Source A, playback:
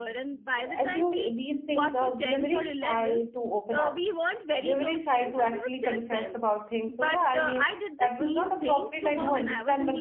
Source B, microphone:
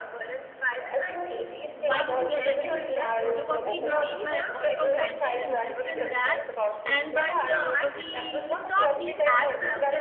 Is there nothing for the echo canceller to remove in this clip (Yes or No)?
No